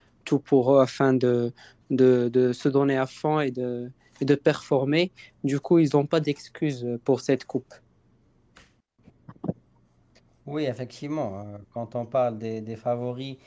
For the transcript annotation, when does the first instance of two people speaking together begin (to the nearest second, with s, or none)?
none